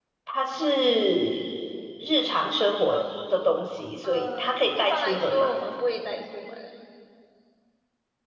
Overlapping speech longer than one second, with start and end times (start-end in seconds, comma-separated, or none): 4.0-5.5